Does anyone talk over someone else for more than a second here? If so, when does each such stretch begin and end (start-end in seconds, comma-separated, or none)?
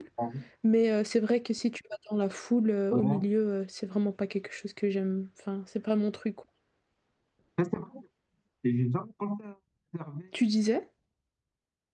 none